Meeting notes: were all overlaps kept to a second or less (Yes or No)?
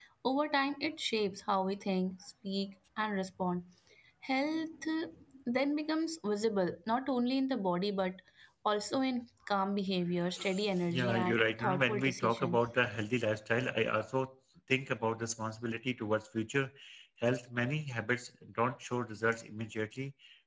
No